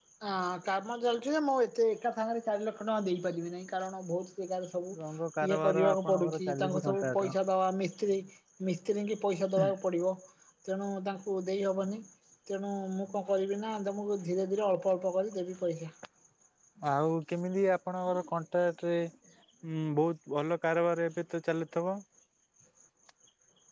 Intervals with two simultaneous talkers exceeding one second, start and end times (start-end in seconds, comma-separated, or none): 5.5-7.3